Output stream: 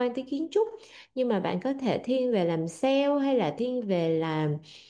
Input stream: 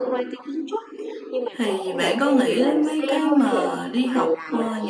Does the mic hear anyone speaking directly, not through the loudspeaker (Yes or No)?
Yes